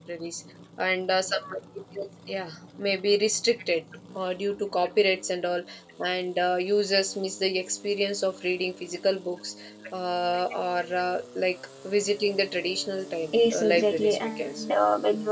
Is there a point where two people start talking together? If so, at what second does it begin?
13.3 s

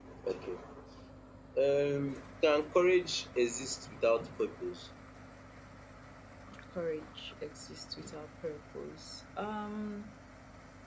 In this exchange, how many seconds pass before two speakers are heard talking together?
none

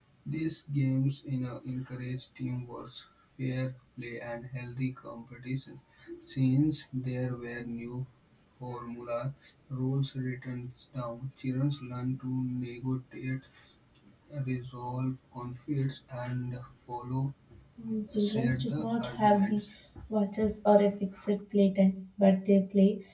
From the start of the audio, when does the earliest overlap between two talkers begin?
18.2 s

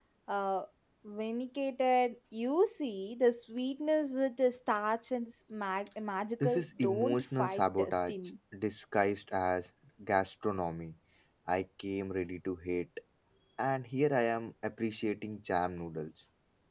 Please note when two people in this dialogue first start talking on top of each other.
6.4 s

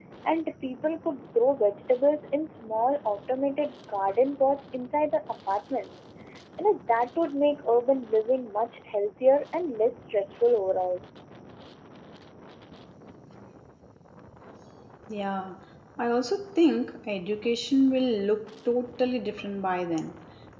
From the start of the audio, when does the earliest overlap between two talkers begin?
none

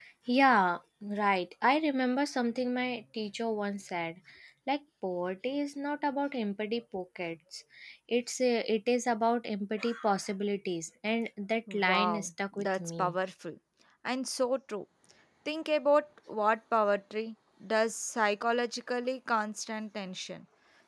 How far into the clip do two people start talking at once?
11.7 s

